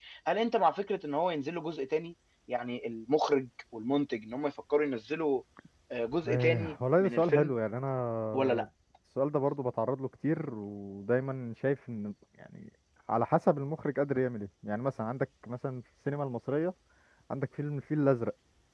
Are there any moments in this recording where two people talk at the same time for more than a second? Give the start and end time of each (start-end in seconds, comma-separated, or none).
6.3-7.5